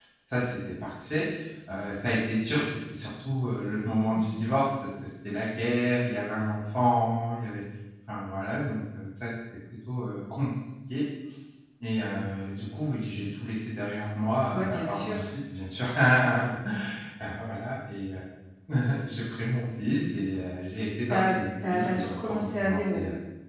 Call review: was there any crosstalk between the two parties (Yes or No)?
Yes